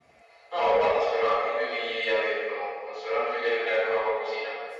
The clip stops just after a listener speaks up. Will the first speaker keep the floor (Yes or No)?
No